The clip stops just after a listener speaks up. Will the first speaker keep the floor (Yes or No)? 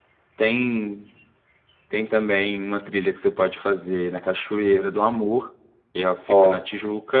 Yes